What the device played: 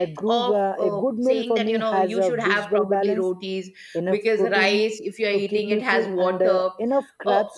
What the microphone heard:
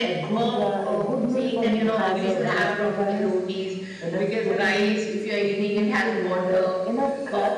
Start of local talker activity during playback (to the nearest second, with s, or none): 2 s